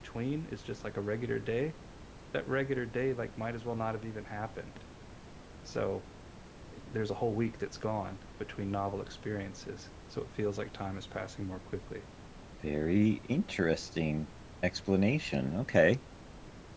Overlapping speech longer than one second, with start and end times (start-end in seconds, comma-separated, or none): none